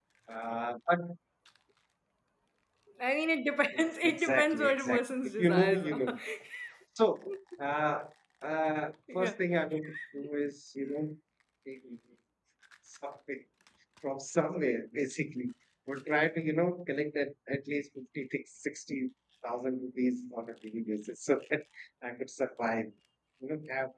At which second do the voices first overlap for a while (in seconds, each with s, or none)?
3.7 s